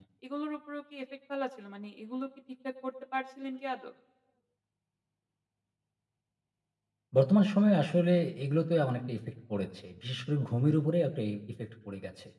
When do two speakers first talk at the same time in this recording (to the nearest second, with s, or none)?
none